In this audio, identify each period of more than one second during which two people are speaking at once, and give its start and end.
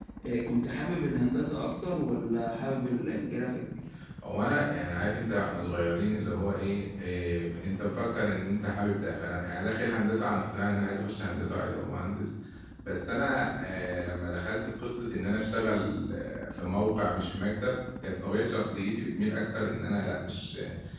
none

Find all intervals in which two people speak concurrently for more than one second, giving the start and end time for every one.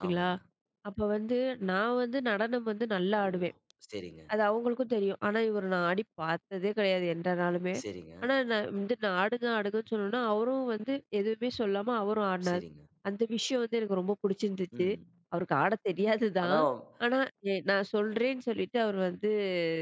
none

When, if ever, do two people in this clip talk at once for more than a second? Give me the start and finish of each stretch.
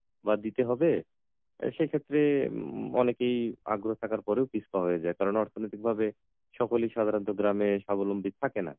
none

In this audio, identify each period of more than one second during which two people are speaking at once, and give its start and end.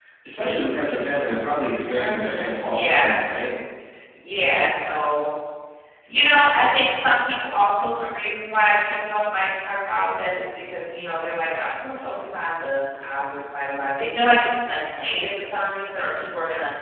1.9-3.1

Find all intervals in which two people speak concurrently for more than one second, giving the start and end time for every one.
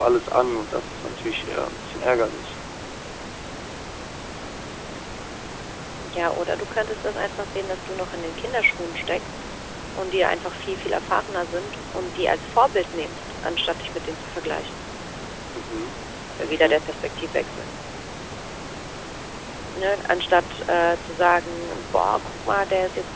none

